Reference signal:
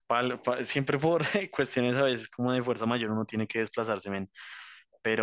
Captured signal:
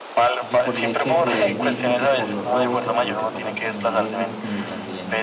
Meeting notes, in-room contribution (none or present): present